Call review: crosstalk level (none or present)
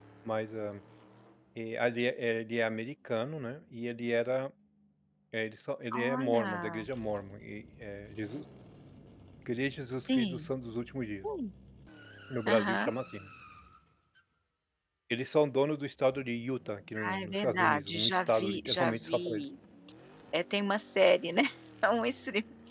present